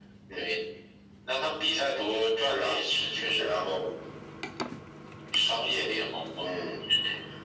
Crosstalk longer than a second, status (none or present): none